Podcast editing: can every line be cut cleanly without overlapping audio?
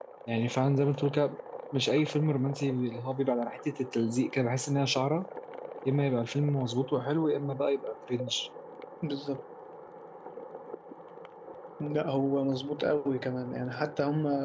Yes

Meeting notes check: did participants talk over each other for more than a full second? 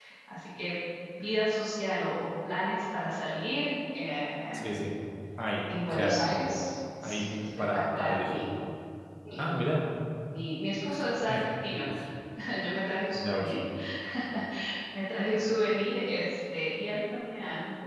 Yes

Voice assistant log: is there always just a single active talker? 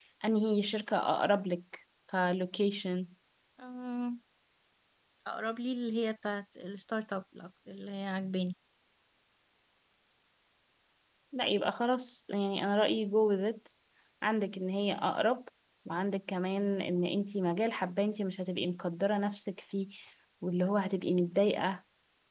Yes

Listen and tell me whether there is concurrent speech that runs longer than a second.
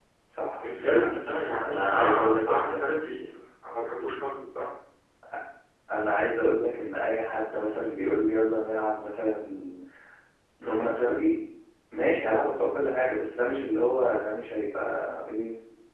Yes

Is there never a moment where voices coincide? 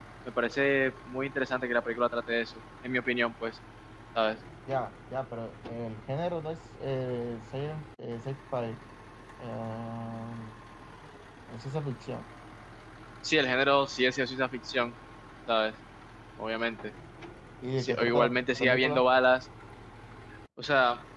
No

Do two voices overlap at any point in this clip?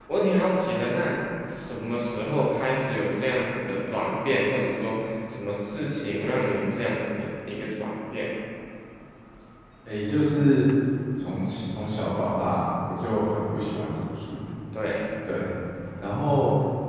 No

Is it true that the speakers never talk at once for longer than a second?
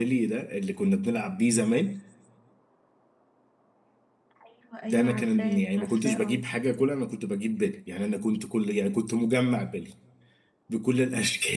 No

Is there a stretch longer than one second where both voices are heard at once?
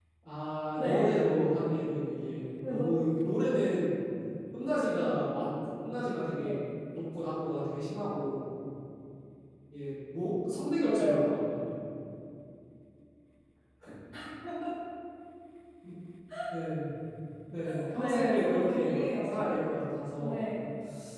Yes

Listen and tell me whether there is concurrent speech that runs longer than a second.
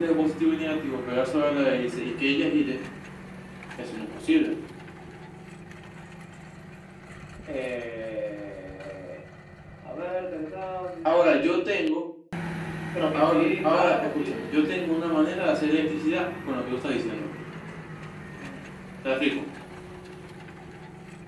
Yes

